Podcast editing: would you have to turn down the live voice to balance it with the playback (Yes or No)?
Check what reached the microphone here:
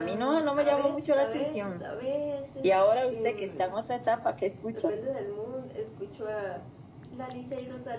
No